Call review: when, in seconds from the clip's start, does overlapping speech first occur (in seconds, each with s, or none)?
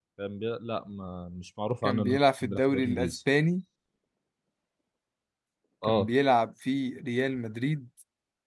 1.8 s